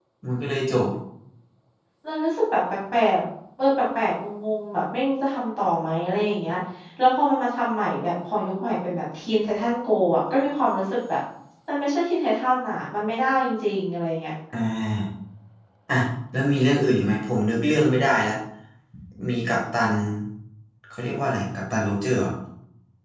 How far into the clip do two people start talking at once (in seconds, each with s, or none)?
none